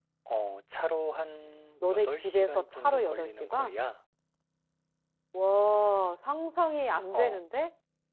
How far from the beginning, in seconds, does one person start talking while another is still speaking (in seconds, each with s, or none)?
1.8 s